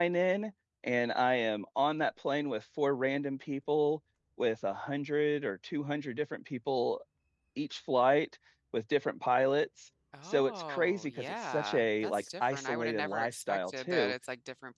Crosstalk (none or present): present